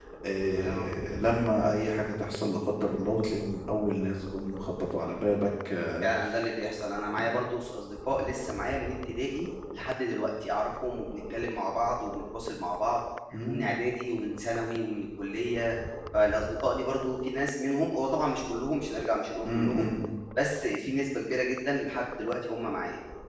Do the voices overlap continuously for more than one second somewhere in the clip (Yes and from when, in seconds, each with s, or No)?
No